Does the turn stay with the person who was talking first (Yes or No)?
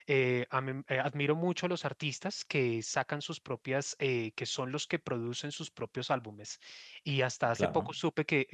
Yes